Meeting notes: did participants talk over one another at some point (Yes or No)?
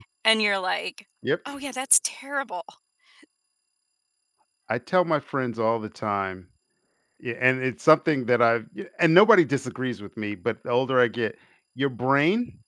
No